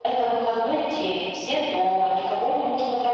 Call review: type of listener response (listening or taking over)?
listening